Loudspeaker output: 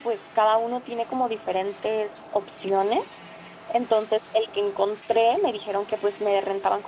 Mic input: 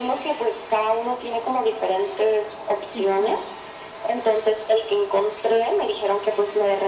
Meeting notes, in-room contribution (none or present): present